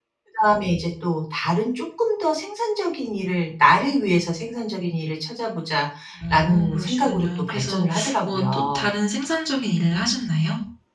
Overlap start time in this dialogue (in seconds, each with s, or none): 6.2 s